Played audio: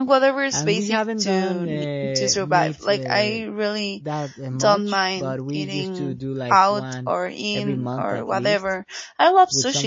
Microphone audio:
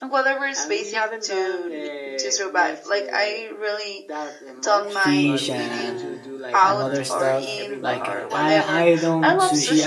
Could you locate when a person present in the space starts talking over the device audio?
4.9 s

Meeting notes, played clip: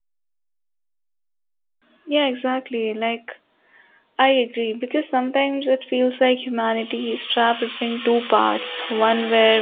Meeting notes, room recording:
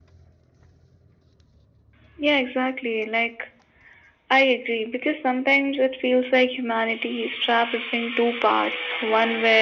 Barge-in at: none

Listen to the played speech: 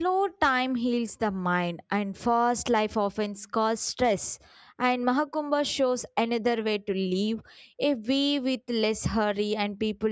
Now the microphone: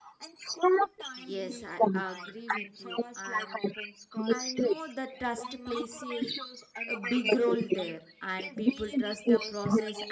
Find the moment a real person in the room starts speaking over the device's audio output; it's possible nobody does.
1.1 s

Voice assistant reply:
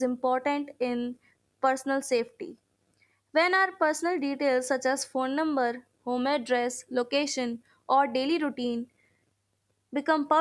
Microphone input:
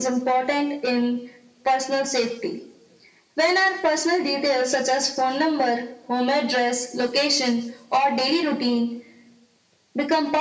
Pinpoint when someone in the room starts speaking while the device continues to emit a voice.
none

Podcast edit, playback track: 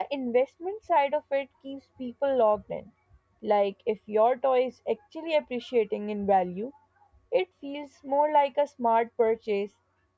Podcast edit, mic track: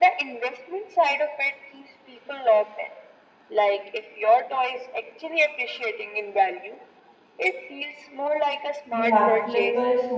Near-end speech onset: 8.9 s

